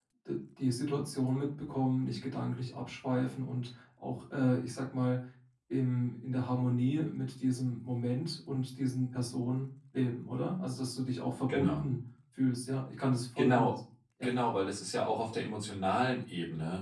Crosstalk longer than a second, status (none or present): none